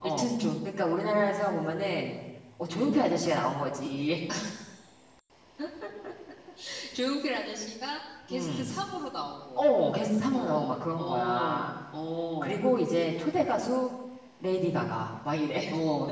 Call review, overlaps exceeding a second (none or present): present